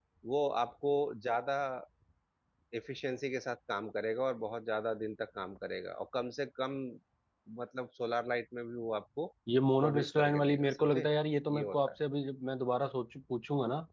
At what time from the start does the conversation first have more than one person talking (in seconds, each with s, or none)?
9.8 s